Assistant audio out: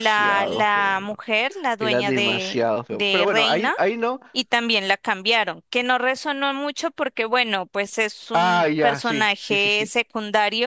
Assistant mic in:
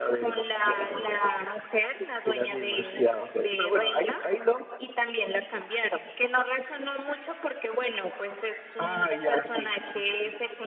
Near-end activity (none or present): none